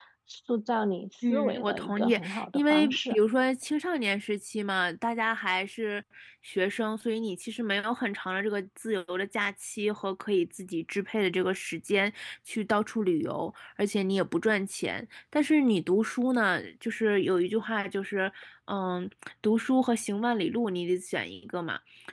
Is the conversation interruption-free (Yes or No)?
No